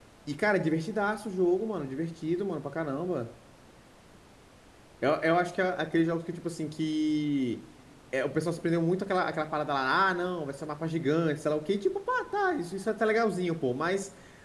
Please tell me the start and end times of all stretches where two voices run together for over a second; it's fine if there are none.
none

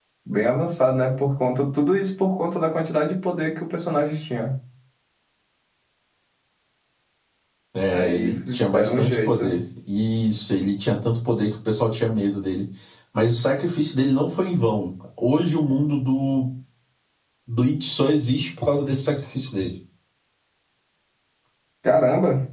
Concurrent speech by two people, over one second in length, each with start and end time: 7.9-9.6

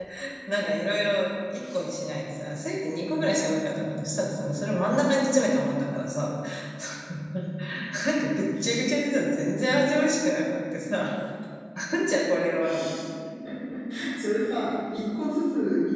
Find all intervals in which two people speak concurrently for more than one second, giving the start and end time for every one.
none

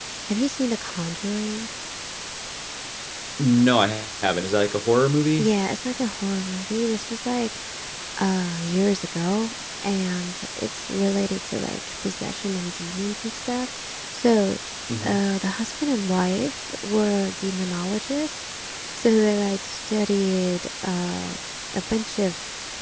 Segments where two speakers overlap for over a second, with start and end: none

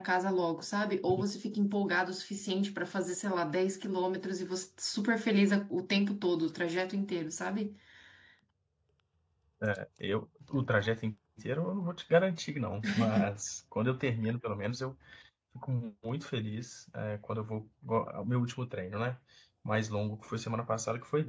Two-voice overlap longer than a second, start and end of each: none

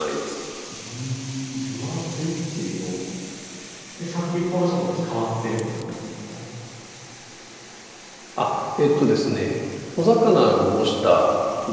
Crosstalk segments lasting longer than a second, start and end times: none

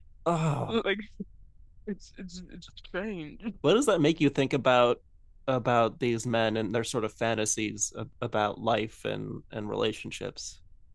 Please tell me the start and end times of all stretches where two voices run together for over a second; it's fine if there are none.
none

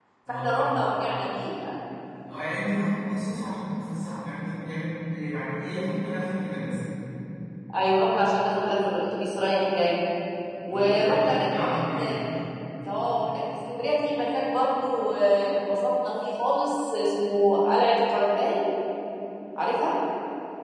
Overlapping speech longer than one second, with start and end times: 10.7-11.9

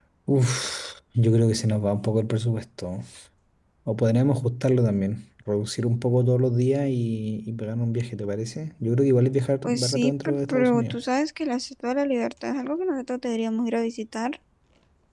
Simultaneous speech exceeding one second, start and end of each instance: 9.6-11.0

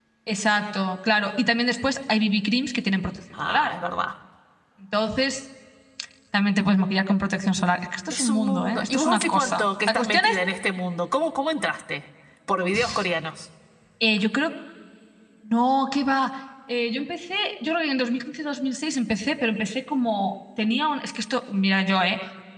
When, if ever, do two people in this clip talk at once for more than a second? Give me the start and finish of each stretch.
8.1-10.4

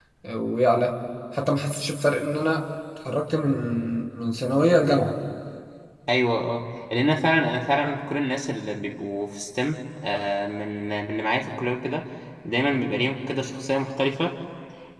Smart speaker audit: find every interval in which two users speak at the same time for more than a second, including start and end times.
none

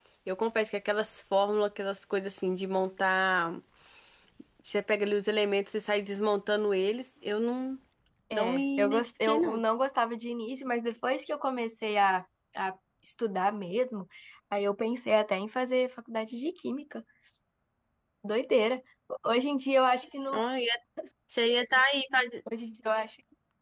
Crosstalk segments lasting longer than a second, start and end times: 8.3-9.6

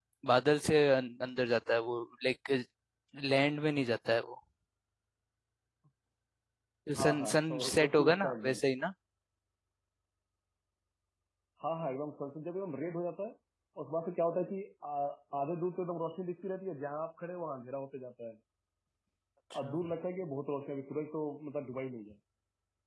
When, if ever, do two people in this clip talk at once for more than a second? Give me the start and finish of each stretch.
7.0-8.6

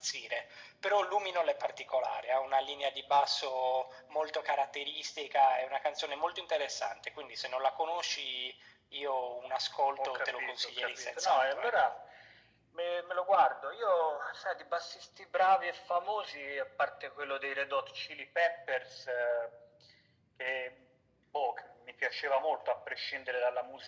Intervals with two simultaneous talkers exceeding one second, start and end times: 10.0-11.9

